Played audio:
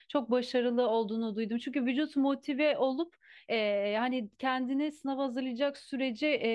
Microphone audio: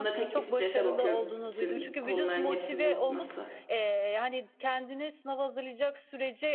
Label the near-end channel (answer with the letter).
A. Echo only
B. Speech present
B